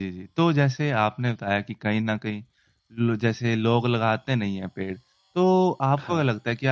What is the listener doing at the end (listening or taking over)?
listening